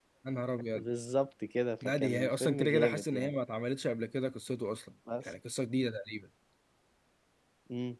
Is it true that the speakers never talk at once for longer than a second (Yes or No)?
No